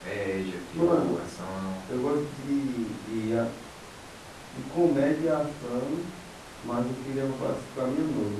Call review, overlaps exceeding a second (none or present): none